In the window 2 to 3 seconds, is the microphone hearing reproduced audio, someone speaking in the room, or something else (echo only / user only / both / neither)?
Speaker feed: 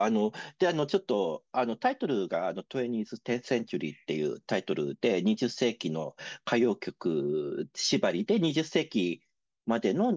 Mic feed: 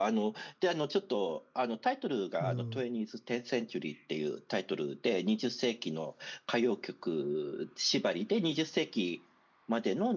both